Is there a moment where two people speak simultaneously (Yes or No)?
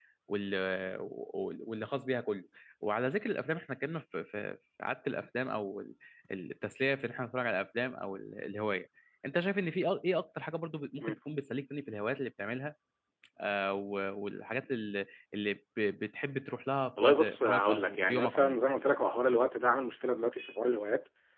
Yes